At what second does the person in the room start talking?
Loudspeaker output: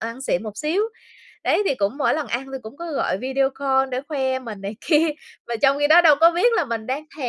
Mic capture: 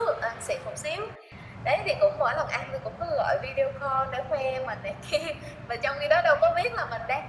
none

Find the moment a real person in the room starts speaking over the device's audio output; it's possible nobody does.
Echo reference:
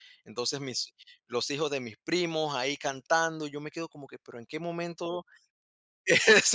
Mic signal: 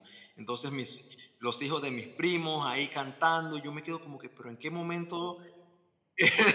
none

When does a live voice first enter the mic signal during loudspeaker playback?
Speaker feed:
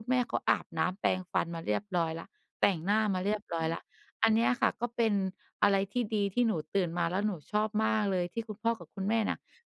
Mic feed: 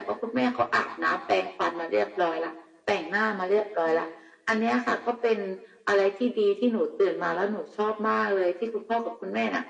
none

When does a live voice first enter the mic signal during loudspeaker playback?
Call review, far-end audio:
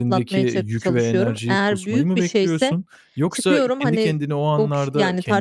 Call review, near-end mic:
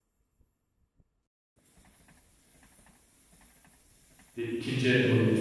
4.4 s

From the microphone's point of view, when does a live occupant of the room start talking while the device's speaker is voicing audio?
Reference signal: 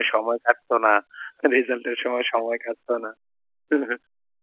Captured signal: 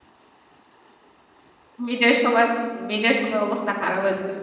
1.9 s

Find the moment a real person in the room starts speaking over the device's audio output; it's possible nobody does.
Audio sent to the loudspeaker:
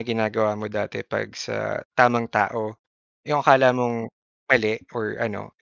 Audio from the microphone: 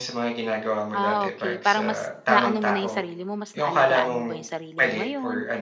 0.9 s

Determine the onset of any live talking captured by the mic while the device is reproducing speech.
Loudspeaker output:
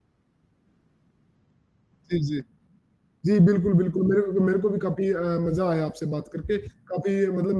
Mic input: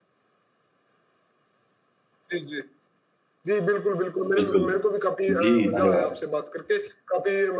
4.4 s

